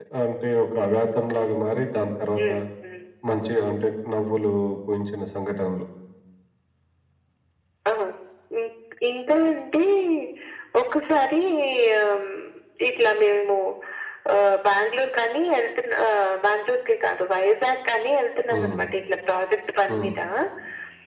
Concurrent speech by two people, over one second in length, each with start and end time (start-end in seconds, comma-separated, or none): none